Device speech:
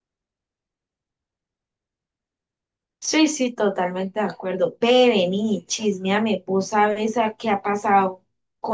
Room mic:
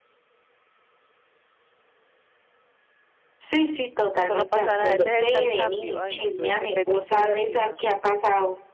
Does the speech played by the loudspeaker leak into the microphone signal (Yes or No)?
Yes